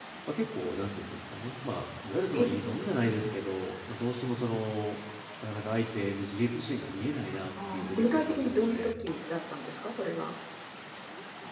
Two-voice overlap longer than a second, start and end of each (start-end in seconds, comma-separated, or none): 7.7-8.9